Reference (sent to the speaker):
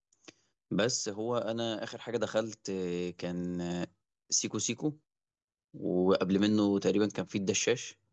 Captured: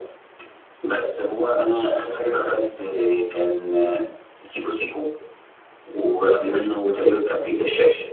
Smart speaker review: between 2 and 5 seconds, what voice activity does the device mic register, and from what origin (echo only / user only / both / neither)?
echo only